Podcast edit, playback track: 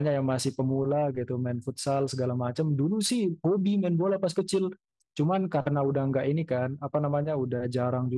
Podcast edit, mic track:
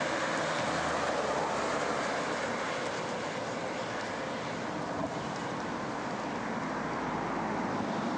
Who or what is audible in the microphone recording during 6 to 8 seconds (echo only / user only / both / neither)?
neither